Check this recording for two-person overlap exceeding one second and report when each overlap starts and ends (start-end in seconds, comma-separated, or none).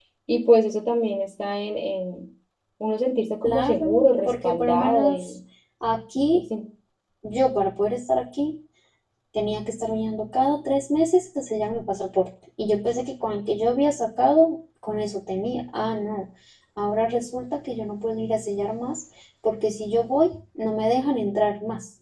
3.4-5.3